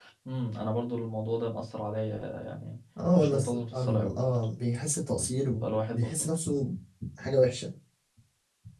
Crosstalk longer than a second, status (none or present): present